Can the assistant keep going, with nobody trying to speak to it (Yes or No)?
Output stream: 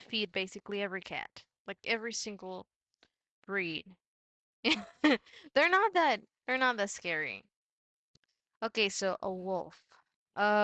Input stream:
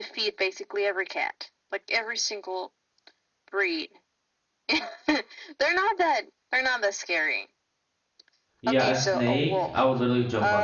No